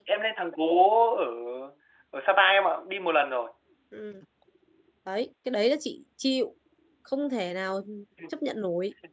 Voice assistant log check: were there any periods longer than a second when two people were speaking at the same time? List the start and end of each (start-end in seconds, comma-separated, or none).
none